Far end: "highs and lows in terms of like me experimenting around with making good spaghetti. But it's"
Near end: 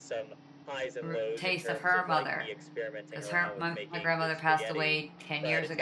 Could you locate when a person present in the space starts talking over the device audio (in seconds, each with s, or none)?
1.0 s